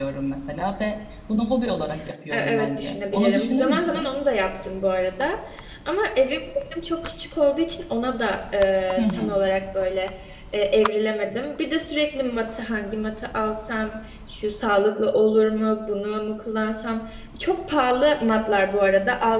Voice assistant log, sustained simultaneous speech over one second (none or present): present